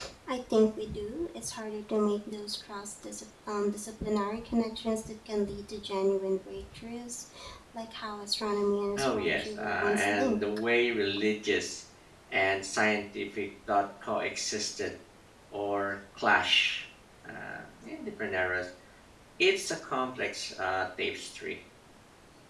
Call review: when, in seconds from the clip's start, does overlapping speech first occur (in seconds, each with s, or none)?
9.0 s